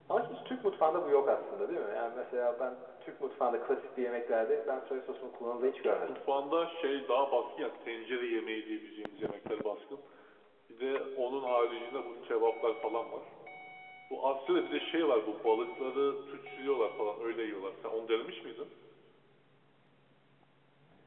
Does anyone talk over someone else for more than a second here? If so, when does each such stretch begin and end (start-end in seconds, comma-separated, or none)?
none